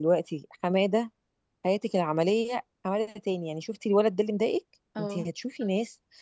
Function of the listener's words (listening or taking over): listening